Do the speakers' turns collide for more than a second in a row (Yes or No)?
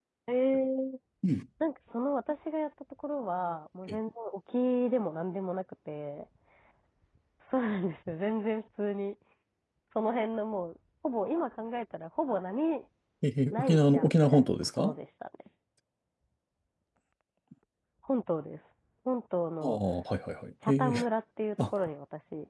Yes